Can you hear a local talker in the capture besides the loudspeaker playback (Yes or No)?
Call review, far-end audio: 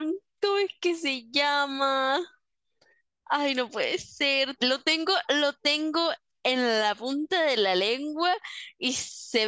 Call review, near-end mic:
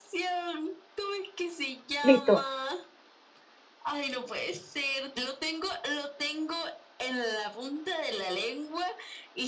Yes